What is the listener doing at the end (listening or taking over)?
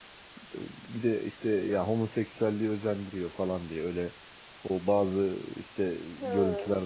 listening